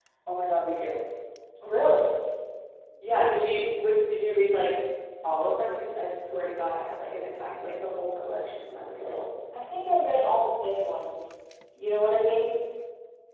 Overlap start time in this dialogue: none

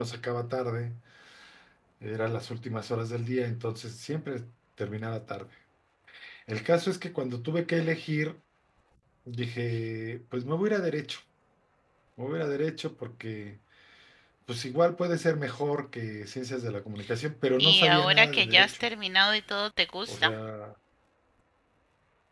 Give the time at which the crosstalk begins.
18 s

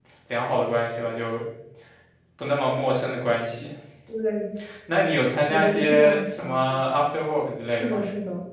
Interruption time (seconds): 5 s

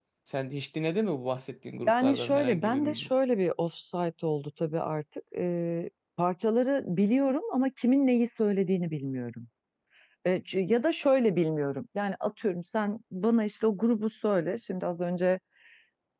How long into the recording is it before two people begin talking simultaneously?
2 s

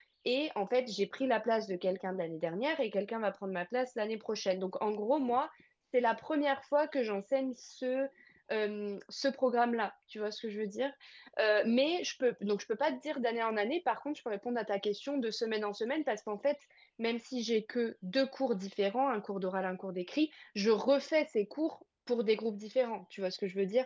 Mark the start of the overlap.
none

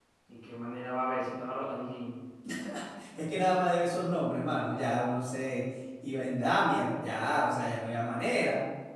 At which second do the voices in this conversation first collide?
none

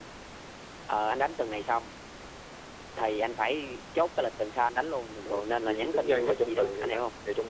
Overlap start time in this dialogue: 5 s

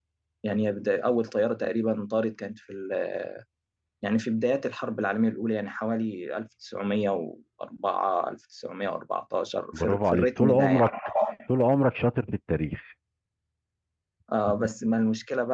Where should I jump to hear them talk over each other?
10 s

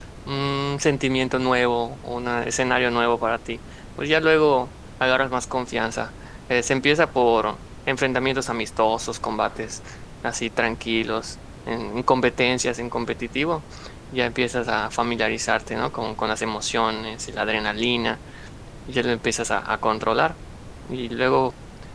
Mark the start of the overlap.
none

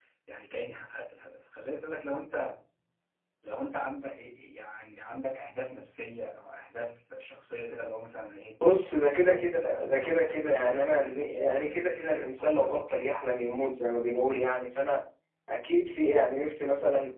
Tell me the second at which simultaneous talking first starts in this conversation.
9 s

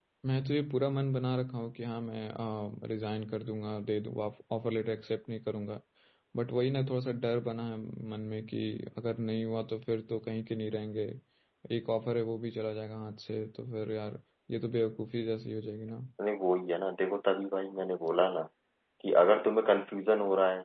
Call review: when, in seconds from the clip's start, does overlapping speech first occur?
none

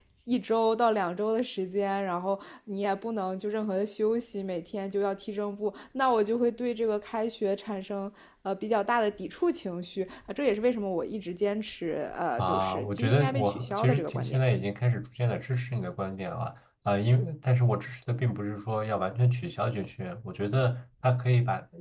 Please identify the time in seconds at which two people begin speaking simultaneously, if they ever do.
12 s

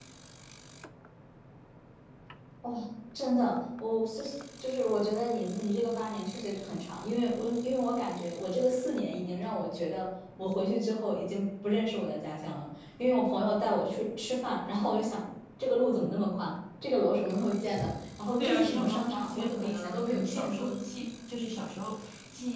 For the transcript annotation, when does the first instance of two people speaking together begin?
18 s

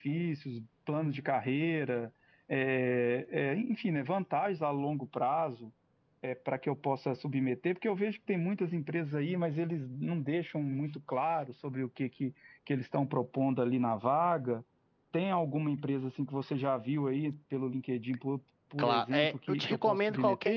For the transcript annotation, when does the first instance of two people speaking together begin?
19 s

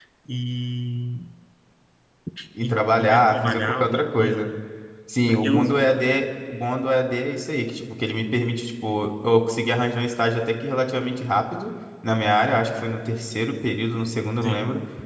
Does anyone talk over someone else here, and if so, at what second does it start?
3 s

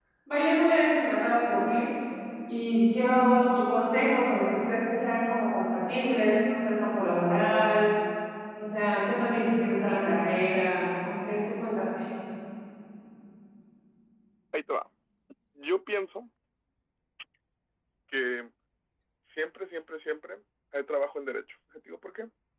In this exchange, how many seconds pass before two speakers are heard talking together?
none

